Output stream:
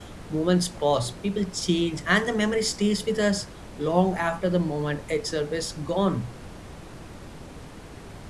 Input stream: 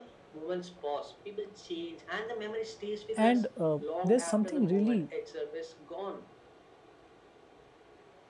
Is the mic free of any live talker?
No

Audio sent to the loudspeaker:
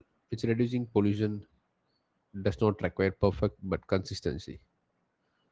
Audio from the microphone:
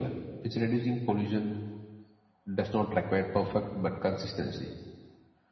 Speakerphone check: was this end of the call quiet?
Yes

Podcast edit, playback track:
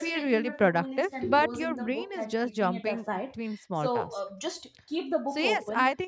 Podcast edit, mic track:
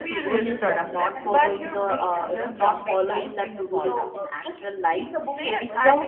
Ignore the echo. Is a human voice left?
Yes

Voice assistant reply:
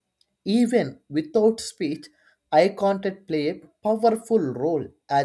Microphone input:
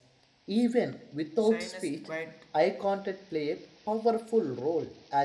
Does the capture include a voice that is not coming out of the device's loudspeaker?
Yes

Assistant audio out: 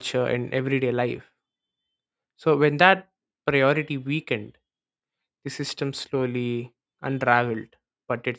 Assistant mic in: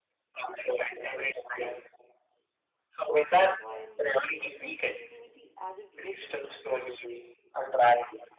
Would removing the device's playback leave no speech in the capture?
No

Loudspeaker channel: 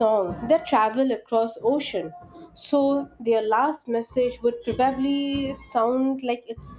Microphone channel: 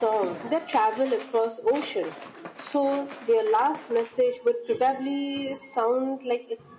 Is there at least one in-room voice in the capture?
No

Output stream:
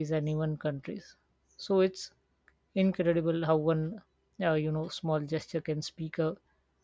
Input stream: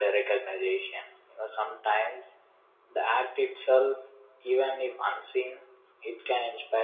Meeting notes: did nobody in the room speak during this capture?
No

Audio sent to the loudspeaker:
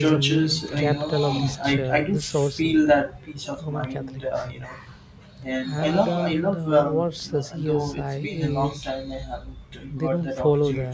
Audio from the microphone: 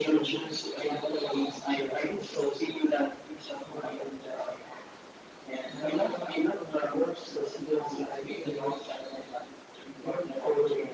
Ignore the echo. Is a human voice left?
No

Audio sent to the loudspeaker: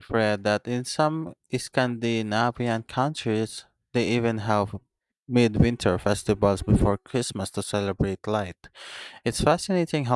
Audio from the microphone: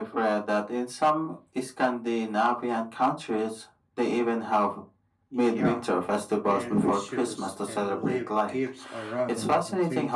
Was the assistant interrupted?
Yes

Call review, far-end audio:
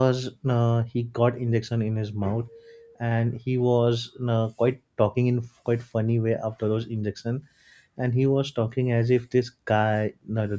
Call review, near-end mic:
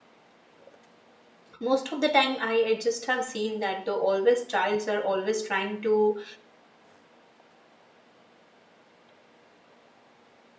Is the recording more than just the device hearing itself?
Yes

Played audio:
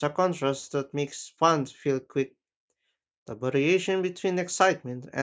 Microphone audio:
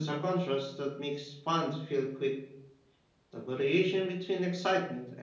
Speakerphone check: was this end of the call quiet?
Yes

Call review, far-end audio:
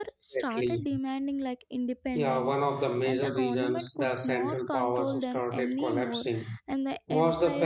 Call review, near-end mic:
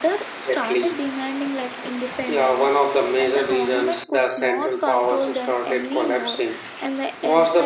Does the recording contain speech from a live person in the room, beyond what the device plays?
No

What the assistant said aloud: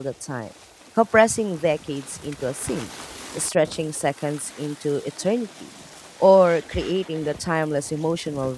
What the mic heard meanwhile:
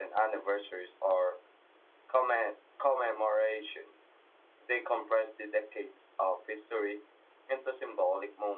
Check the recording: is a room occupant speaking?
Yes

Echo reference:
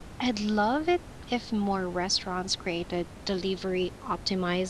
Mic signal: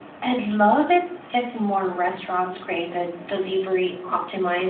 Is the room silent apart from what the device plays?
Yes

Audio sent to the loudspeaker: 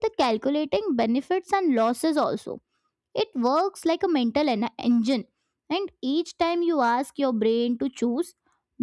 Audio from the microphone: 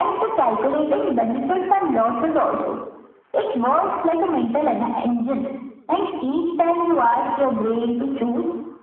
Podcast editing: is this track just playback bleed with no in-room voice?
Yes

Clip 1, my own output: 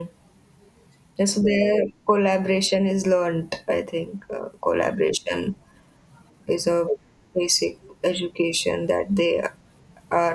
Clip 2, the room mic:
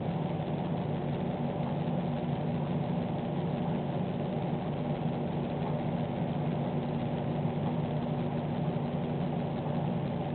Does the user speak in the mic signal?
No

